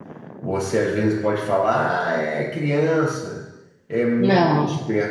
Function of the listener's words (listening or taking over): listening